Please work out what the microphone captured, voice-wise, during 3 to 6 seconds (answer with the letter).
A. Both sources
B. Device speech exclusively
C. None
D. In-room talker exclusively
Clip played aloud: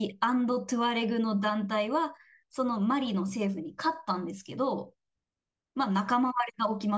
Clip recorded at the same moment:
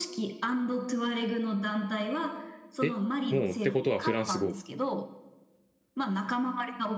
A